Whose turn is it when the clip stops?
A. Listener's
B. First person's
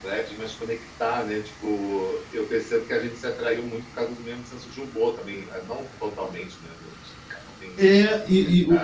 A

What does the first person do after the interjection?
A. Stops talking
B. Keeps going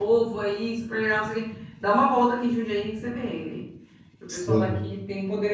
B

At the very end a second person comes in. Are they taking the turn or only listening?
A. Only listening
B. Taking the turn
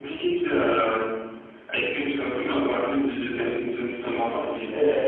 B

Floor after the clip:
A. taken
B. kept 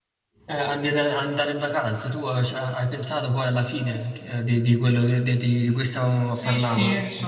A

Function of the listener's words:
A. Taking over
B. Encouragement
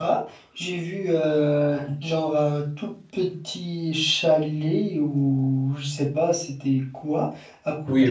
A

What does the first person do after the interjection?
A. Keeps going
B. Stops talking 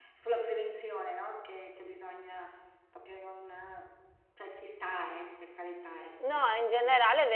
B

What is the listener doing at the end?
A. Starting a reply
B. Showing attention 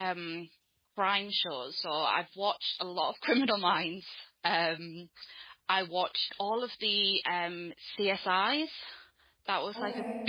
B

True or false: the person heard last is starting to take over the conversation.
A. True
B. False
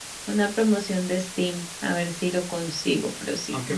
A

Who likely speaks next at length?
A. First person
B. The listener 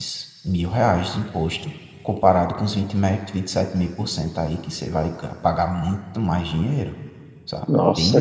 B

